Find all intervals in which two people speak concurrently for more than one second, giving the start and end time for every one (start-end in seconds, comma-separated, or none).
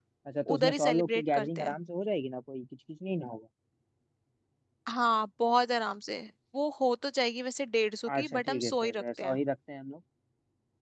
0.5-1.8, 8.2-9.4